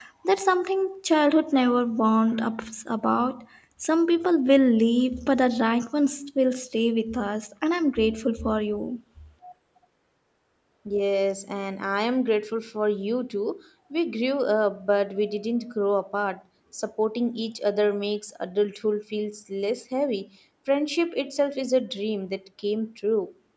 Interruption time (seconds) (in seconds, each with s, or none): none